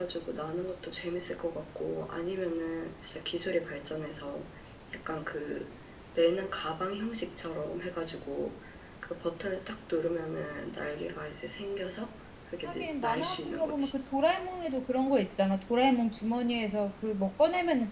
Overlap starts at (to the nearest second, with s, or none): 13 s